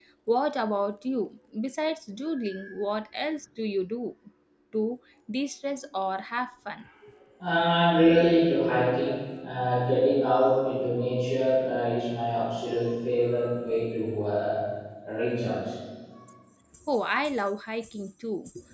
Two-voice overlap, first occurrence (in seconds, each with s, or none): none